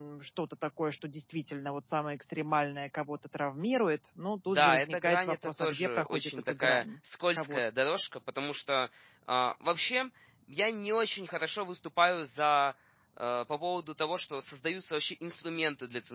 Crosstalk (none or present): present